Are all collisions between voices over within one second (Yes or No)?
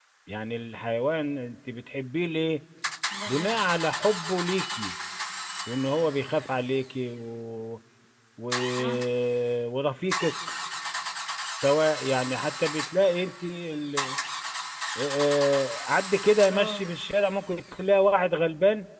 Yes